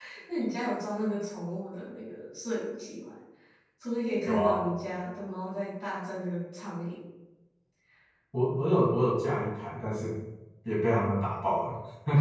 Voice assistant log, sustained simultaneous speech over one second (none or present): none